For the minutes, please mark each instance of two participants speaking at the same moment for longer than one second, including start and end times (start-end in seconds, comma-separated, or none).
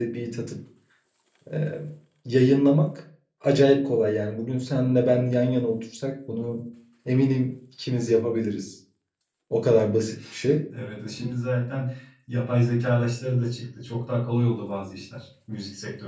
none